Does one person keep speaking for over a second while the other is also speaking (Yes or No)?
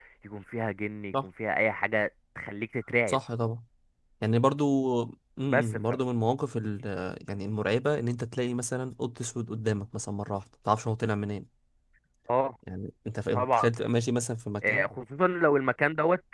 No